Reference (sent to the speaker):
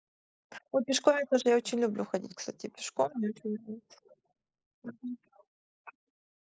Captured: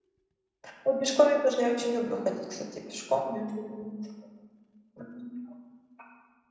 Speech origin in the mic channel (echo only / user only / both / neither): echo only